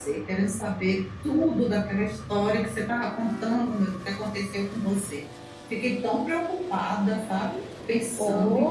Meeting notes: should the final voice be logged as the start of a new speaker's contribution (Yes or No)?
Yes